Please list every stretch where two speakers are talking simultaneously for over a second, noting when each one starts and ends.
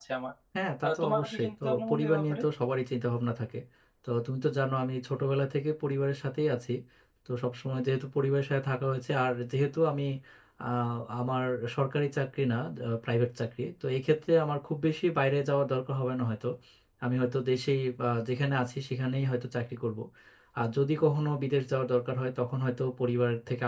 0.8-2.4

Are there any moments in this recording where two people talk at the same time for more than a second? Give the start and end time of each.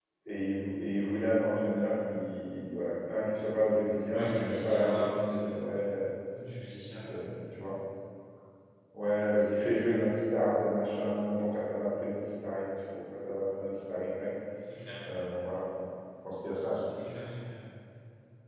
4.1-5.6

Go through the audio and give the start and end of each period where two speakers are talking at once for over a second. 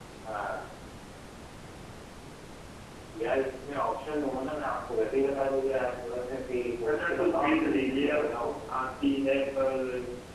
6.9-8.1

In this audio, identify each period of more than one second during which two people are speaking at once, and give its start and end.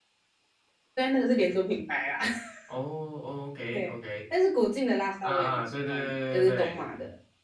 5.2-6.8

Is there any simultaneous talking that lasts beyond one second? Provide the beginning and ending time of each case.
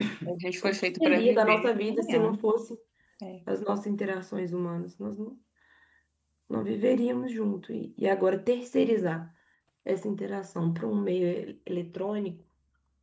0.6-2.4

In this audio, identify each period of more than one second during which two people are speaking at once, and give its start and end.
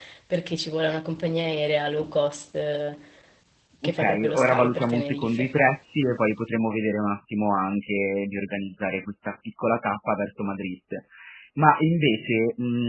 3.8-5.5

